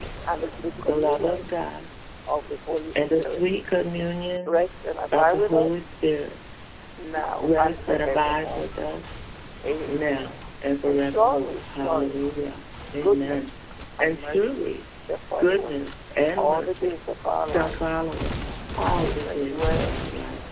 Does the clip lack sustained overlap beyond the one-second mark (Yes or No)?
No